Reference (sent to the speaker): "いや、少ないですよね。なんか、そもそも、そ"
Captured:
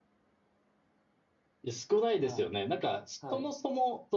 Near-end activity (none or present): present